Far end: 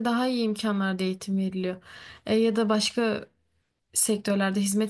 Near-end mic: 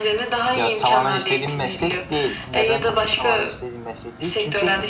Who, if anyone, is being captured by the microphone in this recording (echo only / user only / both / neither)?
both